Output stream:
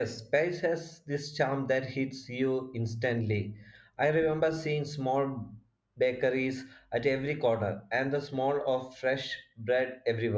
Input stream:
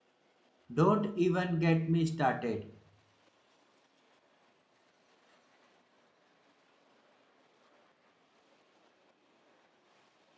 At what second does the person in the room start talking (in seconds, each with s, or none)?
0.7 s